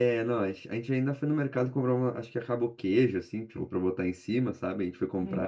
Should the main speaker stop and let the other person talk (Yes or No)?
No